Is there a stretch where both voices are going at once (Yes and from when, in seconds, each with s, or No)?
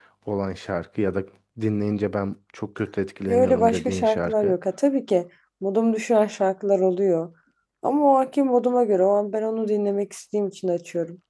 Yes, from 3.3 s